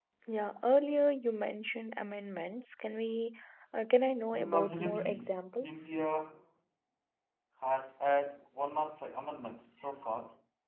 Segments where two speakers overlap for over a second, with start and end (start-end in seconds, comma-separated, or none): 4.3-5.9